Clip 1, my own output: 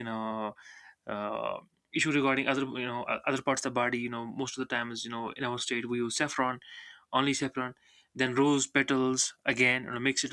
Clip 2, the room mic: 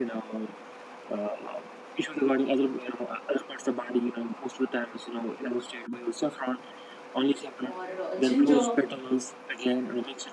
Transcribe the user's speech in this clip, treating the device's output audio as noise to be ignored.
or uh, ginger

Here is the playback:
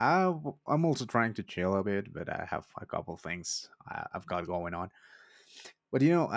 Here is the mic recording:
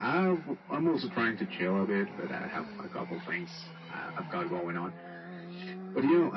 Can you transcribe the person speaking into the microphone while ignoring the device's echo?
none

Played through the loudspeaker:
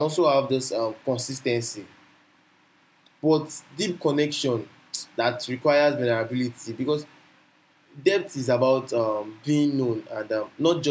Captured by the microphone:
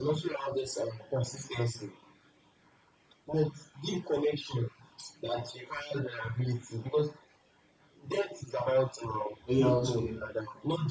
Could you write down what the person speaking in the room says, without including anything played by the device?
earlier on today,

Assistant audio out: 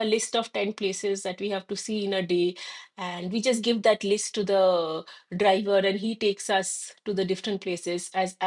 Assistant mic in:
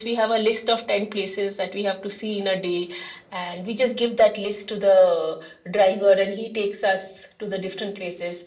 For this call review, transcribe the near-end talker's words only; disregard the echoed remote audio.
none

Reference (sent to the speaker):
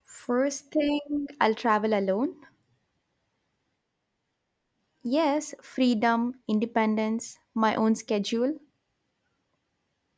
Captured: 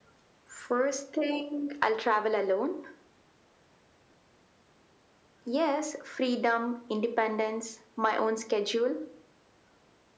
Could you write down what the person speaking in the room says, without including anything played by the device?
none

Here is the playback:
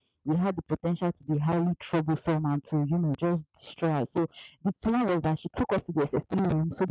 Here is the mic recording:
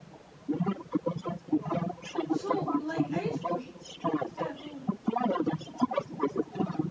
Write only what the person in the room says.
Wow. So, like, I used to Yeah, go on.

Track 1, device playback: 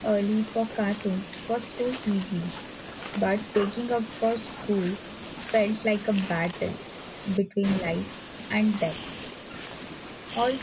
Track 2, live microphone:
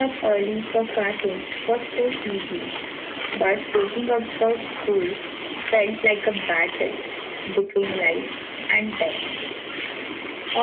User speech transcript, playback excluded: none

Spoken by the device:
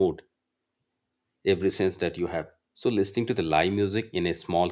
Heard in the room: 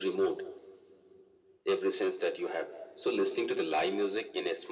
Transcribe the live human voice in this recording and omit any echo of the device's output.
none

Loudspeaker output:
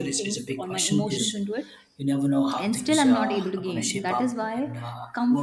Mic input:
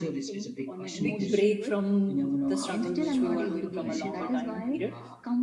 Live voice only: big break from the struggle which we were doing from a longer time period

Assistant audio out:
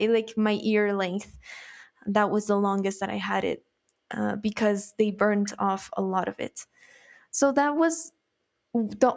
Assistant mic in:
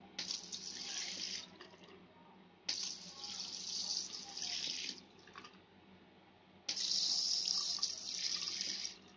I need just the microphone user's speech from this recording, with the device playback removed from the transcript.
none

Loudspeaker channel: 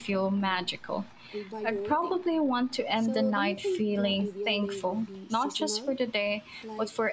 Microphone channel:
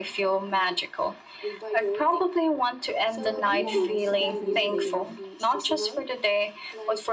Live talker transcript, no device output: Well, yes, definitely.

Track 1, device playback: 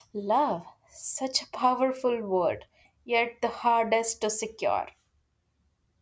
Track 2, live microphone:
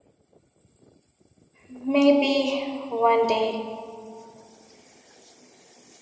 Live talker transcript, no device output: maybe one day

